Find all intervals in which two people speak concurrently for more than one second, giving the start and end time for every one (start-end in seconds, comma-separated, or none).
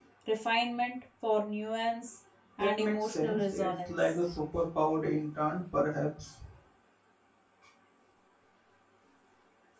2.6-4.0